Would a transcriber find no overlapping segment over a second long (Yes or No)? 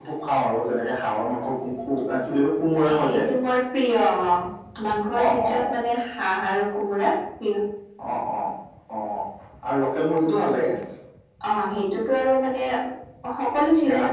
Yes